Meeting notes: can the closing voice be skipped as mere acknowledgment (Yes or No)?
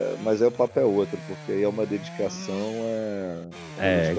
No